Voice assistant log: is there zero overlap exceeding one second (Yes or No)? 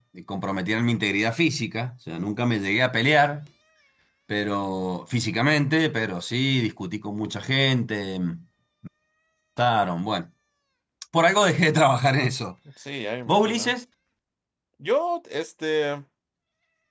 Yes